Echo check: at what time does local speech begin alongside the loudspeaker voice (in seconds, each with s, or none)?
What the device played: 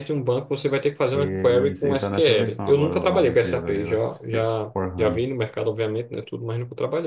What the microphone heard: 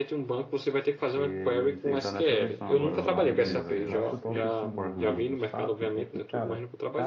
2.6 s